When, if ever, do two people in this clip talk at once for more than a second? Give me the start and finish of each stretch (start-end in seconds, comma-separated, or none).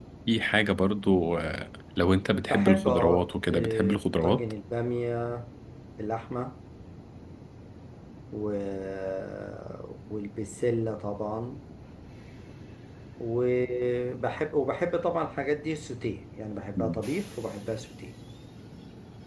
2.5-4.4